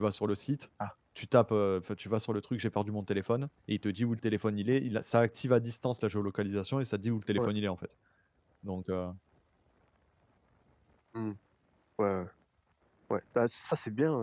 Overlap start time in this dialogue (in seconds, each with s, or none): none